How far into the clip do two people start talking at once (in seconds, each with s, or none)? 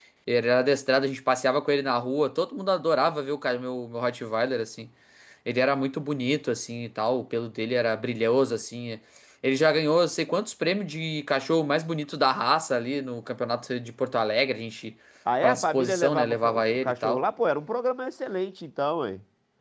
15.4 s